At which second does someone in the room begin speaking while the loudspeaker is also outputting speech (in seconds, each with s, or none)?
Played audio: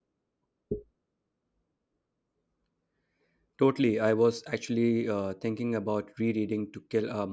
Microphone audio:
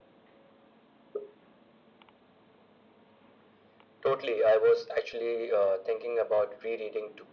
none